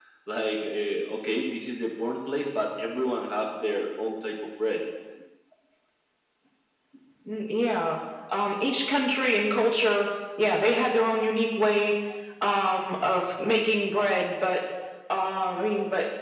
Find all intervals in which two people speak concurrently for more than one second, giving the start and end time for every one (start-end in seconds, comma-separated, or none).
none